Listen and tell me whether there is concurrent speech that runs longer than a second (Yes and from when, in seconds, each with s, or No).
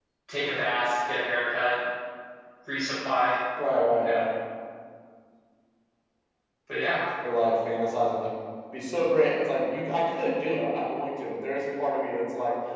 No